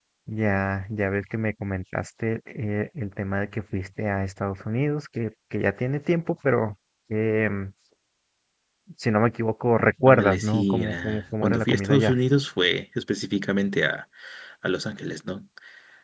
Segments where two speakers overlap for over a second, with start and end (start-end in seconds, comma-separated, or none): 10.1-12.2